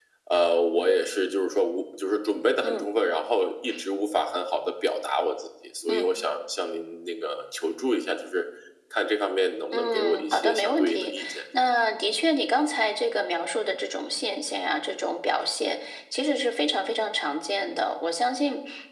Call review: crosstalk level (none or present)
present